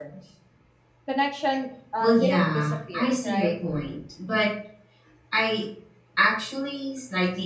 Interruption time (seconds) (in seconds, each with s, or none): 2.0 s